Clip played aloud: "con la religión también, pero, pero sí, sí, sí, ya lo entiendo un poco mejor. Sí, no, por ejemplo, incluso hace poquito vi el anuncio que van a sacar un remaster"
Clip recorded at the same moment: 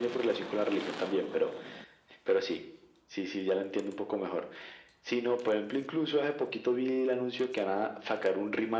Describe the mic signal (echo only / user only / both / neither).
echo only